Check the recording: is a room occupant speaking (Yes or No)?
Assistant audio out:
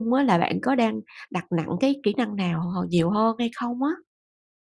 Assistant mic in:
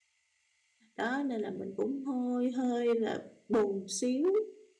Yes